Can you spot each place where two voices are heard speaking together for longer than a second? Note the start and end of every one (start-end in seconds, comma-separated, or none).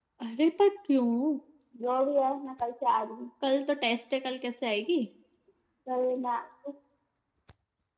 none